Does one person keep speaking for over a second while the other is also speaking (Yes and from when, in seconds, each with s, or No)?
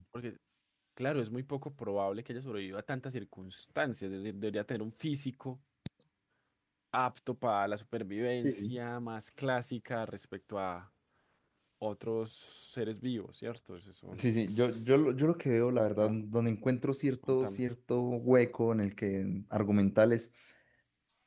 No